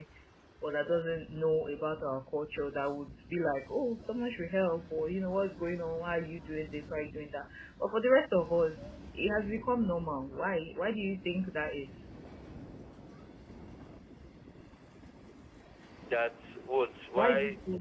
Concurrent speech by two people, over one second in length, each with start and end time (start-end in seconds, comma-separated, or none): none